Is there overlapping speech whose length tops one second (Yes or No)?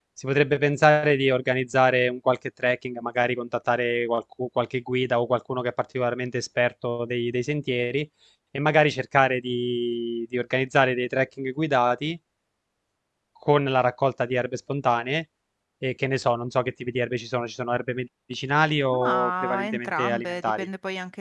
Yes